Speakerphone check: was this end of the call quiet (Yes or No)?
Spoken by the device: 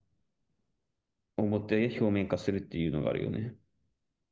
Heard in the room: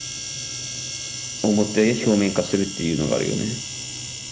Yes